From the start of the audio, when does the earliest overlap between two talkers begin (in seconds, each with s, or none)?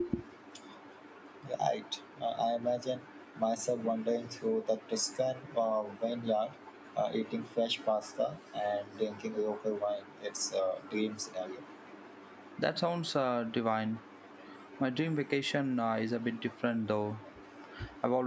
none